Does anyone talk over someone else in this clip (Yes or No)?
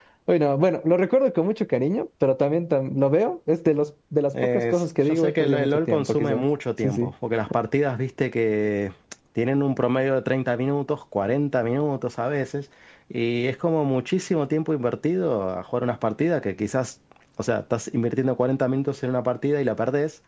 Yes